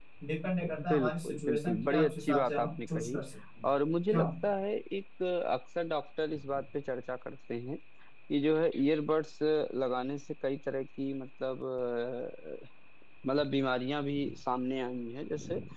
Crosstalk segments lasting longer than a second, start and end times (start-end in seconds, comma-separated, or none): 0.9-3.2